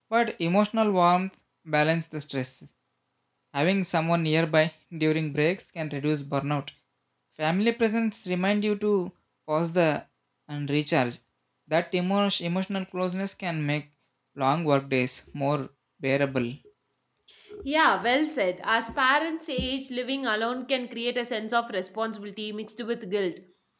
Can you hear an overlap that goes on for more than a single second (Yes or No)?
No